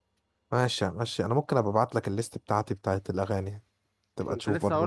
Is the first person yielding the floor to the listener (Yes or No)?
Yes